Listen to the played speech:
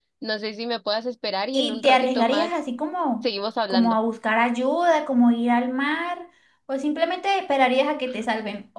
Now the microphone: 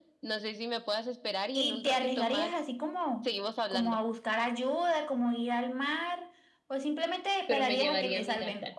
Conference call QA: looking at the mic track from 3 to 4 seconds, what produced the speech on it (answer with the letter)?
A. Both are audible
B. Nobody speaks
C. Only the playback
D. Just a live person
C